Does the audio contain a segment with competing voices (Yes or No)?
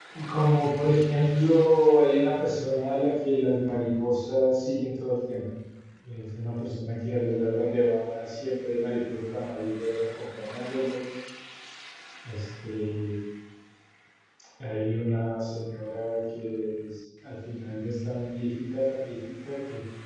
No